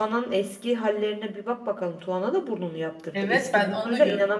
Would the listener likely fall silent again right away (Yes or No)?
No